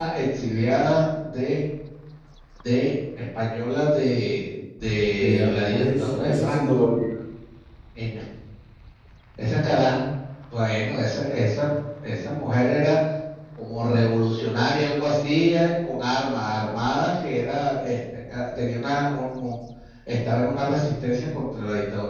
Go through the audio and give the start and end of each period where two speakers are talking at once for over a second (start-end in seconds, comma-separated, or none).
5.2-6.7